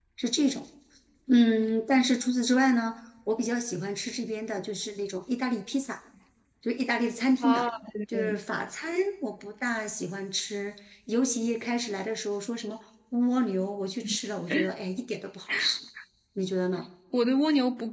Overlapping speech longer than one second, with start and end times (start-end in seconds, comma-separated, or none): none